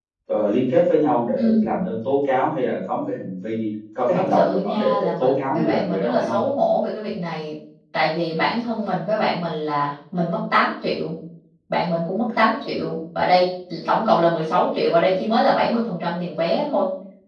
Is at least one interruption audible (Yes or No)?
Yes